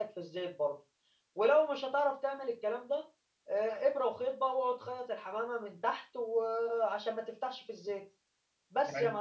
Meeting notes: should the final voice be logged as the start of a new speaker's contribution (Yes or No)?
Yes